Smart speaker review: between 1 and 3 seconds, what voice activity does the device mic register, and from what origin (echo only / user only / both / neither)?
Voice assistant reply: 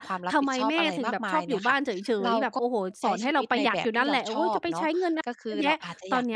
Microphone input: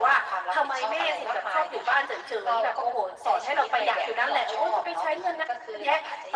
echo only